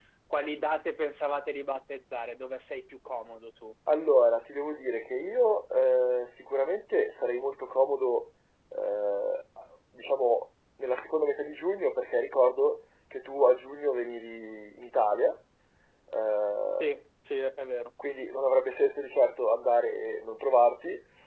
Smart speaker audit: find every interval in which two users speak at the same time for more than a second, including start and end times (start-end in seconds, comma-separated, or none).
none